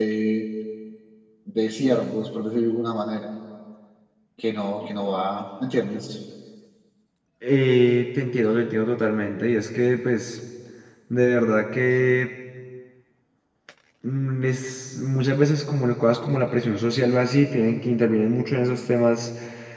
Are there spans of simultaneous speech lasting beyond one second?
No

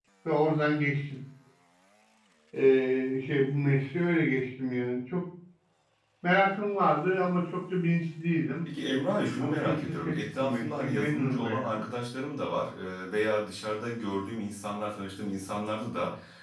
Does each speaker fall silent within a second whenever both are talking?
No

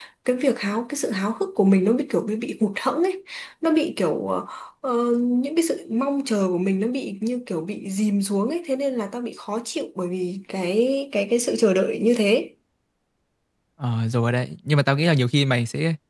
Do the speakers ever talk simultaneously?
No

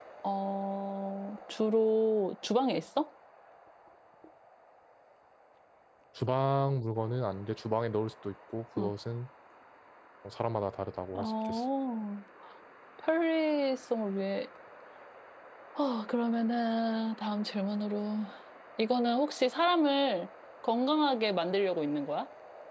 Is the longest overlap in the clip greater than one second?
No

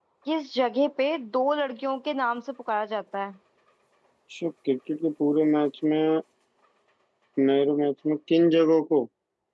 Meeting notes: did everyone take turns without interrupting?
Yes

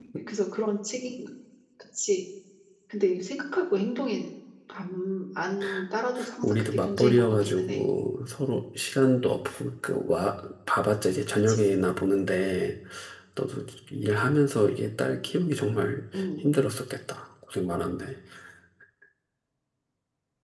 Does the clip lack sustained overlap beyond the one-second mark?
No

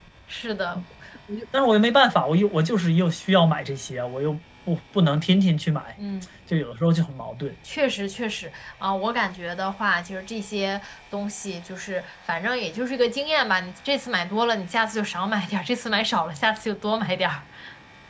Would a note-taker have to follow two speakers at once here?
No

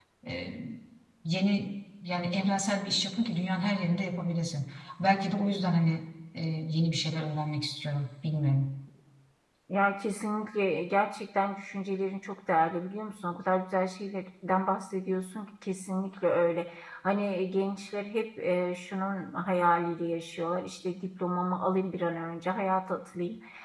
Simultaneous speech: No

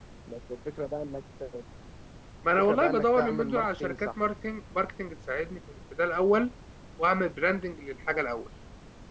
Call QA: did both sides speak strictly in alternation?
No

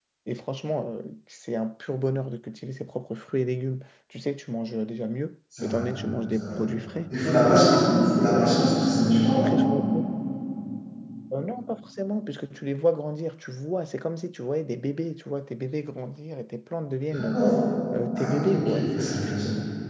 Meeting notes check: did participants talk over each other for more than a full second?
Yes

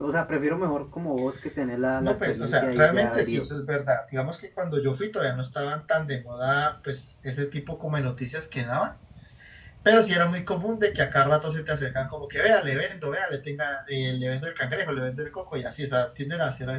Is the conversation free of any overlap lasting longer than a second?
No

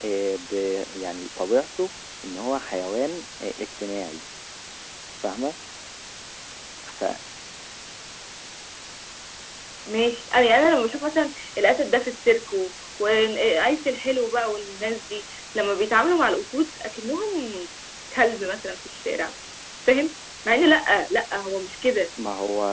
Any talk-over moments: No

